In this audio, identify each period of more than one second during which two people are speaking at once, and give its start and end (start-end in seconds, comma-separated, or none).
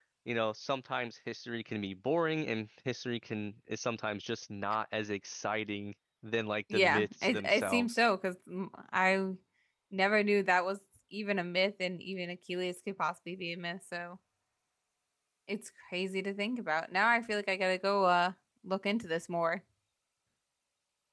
6.7-8.0